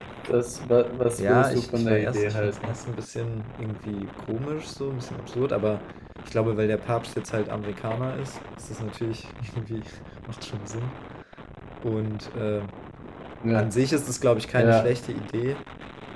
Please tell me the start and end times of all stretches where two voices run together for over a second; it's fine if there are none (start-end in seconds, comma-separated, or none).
1.2-2.8